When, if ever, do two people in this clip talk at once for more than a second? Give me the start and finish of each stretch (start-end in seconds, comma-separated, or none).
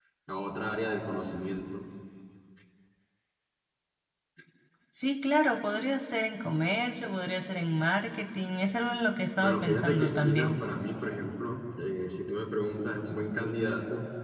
9.4-10.6